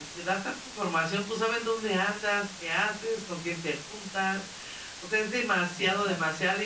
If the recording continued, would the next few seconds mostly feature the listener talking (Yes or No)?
No